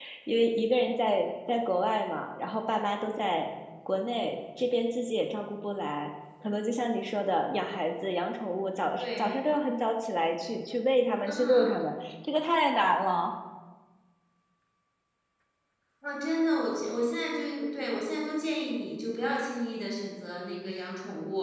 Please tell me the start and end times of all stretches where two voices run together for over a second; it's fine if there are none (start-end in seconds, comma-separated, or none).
none